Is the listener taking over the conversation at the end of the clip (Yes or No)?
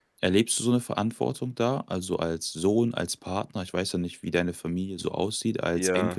Yes